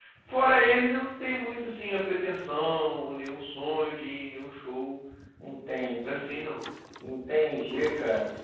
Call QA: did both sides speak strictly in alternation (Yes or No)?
Yes